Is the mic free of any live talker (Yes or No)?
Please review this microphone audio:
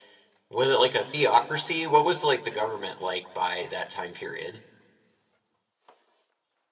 Yes